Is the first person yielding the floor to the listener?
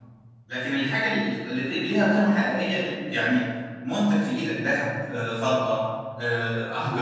Yes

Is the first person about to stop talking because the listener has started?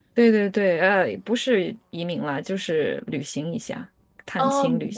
Yes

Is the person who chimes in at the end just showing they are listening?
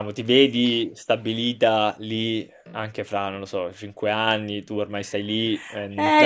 No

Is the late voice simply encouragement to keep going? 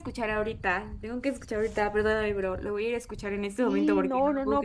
No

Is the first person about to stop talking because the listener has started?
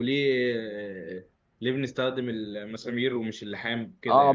Yes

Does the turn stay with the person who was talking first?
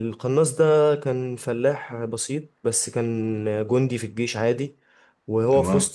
Yes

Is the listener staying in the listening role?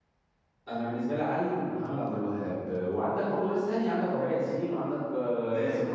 No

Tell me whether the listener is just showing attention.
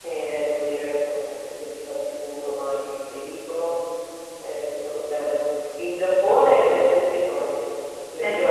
No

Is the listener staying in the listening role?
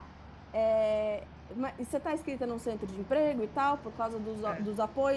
Yes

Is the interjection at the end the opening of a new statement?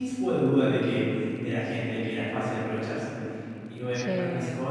No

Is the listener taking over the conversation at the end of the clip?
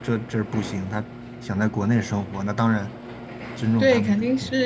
Yes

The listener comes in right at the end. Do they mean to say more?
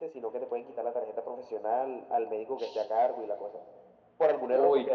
No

